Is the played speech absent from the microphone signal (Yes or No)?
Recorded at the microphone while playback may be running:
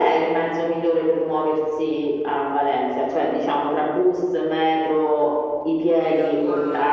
No